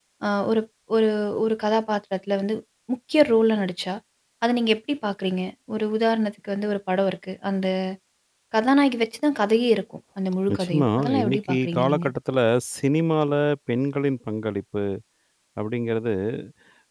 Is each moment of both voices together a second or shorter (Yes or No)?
No